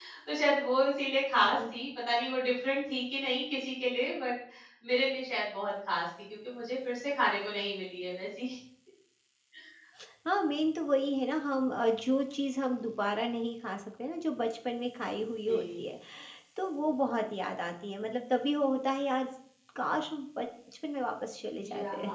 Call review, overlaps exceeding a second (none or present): none